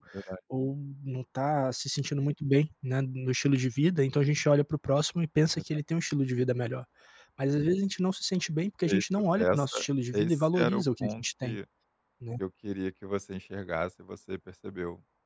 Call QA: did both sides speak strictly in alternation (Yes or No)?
No